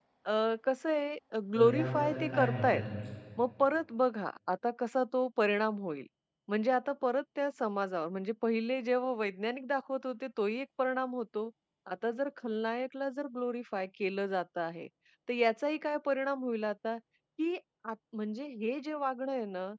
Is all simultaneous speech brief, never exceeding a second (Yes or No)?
No